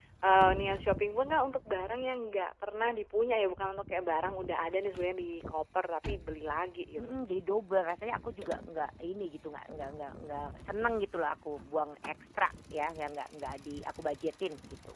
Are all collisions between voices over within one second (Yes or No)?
Yes